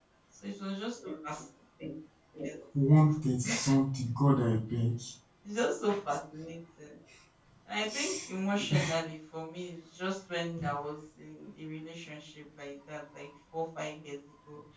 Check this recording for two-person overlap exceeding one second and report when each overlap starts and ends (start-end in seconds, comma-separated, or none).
none